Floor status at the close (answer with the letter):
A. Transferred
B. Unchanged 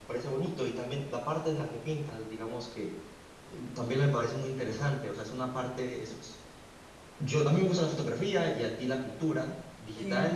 B